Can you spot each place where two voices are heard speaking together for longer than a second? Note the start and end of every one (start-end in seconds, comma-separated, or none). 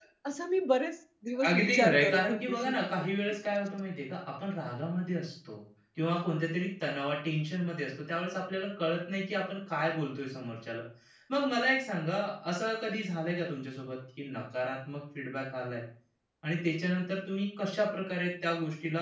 1.4-2.8